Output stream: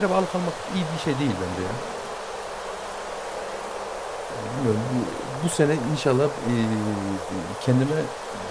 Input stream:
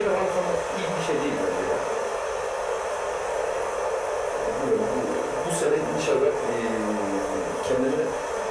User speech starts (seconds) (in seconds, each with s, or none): none